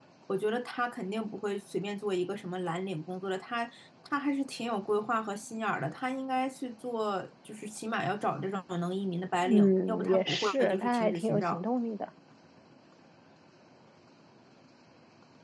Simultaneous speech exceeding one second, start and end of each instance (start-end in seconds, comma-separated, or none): 9.4-11.6